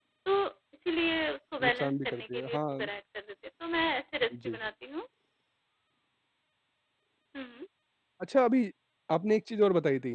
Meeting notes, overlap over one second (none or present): present